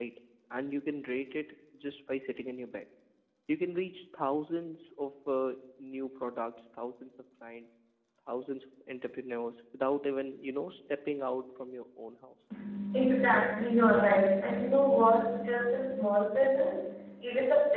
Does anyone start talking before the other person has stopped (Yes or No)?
No